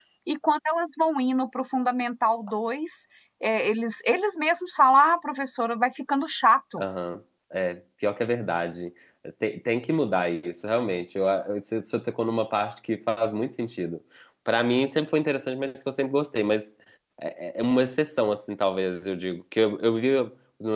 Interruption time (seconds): none

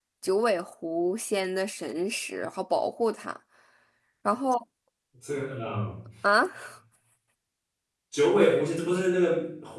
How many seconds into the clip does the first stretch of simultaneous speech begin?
none

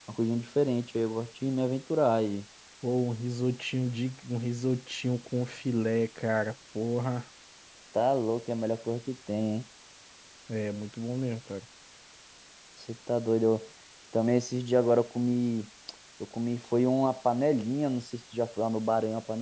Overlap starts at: none

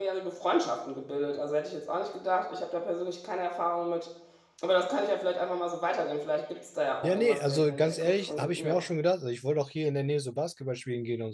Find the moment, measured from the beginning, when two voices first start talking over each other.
7 s

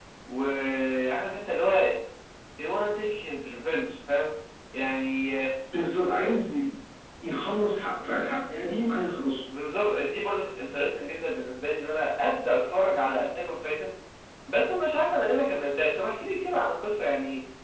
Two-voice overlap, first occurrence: none

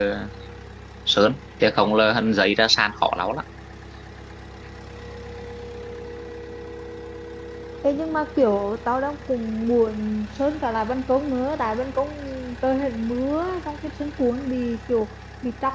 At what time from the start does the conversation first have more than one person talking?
none

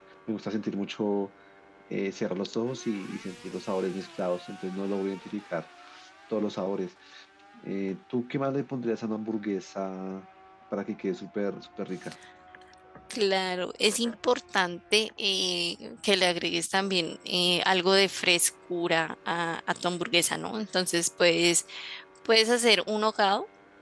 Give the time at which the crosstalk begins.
none

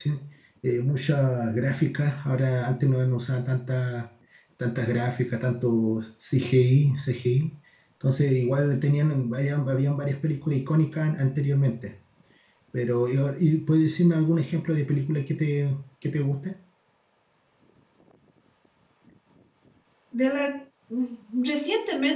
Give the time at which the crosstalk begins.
none

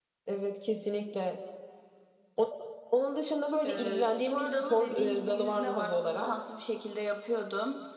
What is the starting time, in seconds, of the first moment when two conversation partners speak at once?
4 s

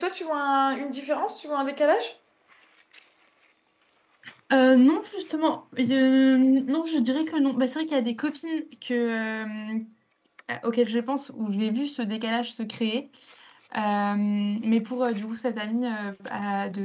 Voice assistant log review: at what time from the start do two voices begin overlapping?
none

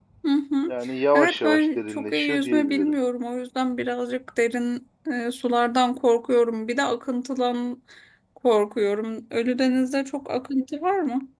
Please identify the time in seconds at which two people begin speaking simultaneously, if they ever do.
1 s

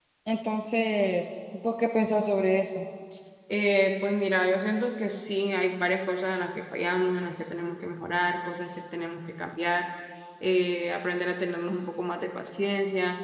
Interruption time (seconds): none

